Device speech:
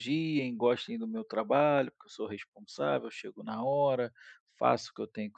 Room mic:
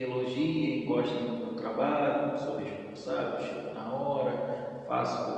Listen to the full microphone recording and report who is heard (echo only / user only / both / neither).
echo only